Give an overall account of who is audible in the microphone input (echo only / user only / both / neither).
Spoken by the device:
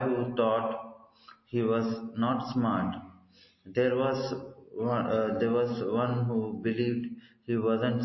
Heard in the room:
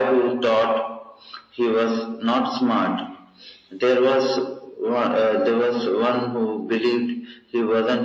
echo only